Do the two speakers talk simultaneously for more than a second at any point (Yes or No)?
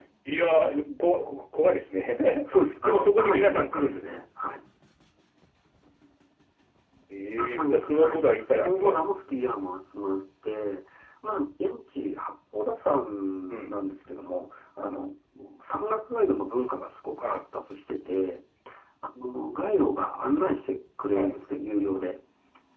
Yes